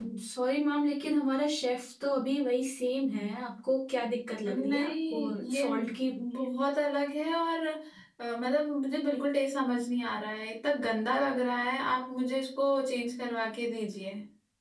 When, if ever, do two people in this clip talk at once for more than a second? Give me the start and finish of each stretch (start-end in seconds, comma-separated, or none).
4.5-5.7